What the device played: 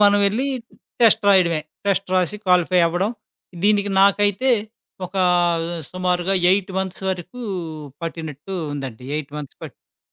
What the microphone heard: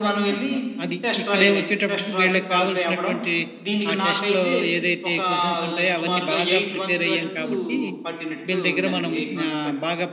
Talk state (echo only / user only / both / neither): both